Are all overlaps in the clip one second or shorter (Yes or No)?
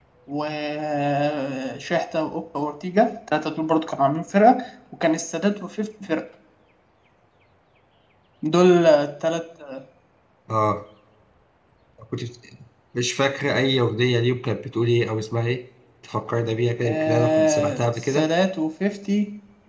No